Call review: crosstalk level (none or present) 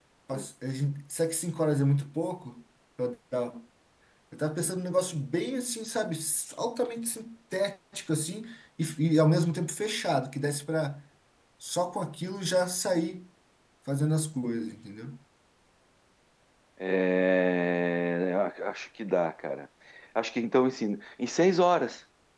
none